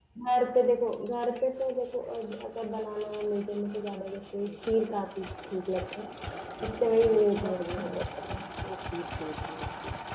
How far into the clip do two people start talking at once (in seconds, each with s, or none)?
6.8 s